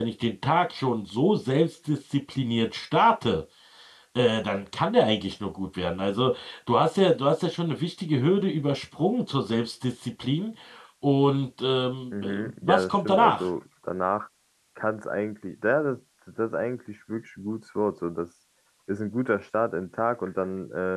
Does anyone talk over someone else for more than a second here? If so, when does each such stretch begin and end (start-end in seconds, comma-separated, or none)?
12.2-13.5